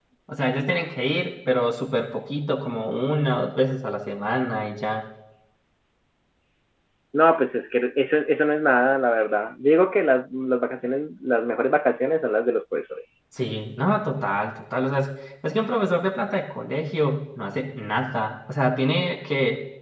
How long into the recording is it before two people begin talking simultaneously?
none

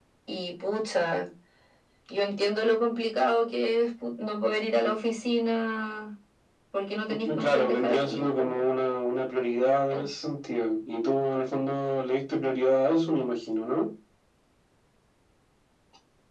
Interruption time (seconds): 7 s

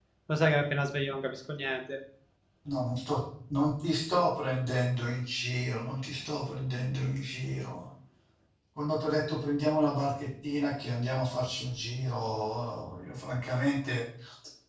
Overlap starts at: none

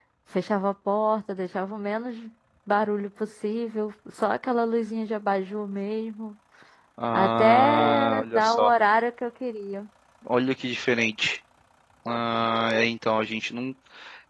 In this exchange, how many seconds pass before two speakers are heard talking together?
7 s

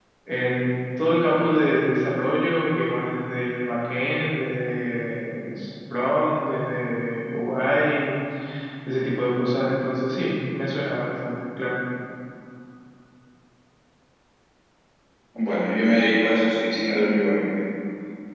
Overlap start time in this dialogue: none

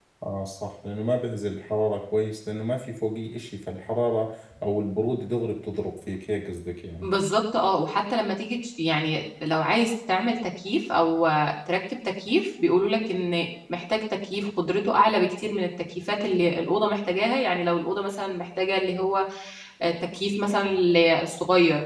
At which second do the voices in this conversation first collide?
none

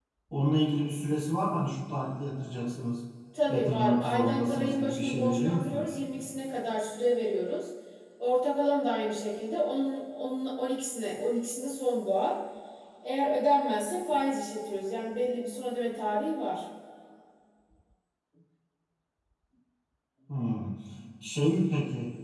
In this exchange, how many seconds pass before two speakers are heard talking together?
3 s

